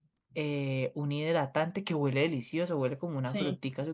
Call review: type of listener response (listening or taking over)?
listening